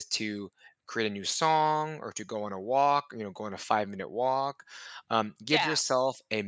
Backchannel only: Yes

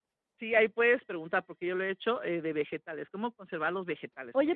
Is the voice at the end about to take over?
Yes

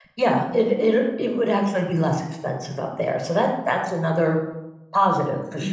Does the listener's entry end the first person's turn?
Yes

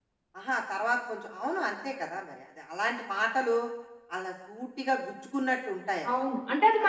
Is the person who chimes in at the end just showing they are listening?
No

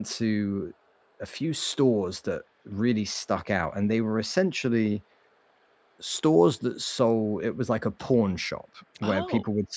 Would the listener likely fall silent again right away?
Yes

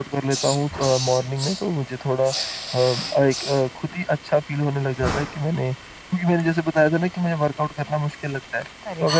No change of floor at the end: Yes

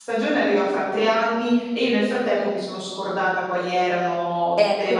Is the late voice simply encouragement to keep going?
No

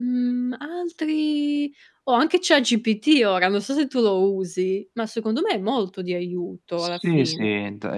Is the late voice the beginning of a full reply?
Yes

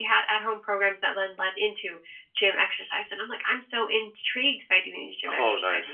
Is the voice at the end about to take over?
No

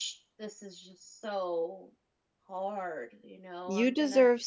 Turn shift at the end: Yes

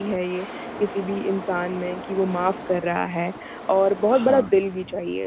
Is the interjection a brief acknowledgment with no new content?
Yes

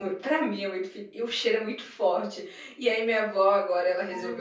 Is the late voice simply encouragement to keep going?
Yes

